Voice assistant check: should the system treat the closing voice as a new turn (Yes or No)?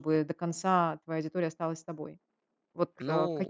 No